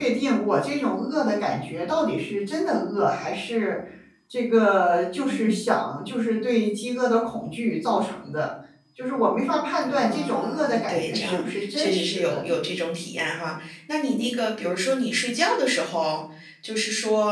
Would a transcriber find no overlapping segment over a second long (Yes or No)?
No